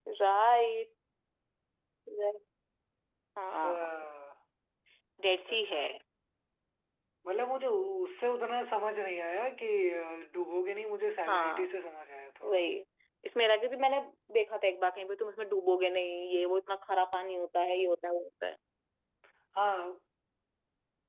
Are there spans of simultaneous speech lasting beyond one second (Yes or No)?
No